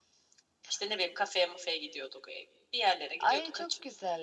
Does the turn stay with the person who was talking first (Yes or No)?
No